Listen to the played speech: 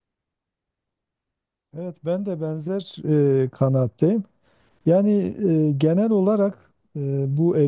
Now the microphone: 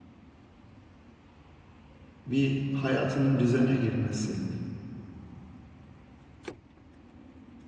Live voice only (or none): bir hayatının düzene girmesi.